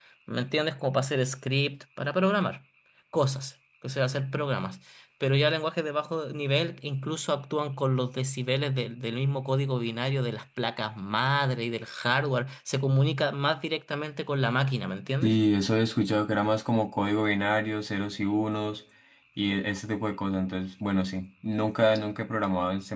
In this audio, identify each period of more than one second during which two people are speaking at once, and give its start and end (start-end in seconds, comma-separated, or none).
none